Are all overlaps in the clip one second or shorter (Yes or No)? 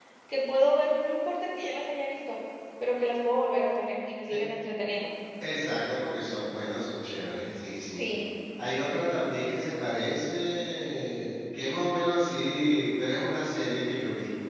Yes